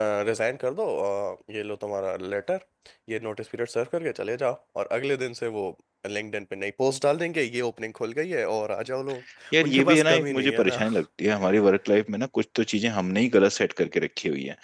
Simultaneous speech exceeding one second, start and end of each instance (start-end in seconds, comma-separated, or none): 9.6-10.8